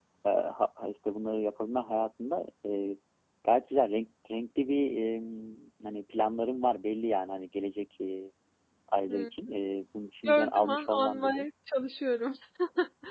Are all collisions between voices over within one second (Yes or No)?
No